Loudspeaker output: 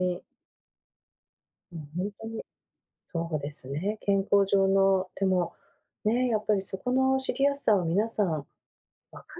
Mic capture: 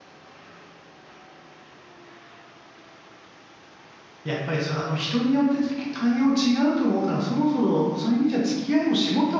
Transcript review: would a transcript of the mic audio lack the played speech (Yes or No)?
Yes